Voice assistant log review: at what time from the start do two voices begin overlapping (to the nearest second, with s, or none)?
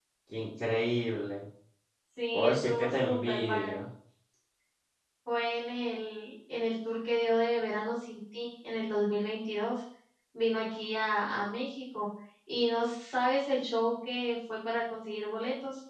2 s